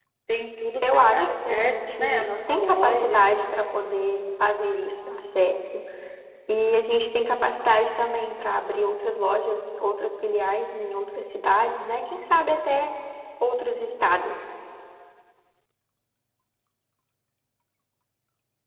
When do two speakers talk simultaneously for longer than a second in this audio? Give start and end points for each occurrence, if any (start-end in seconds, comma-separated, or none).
0.8-3.3